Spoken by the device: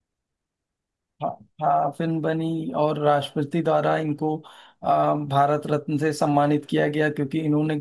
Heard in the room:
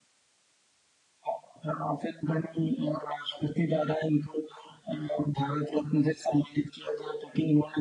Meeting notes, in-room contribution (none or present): none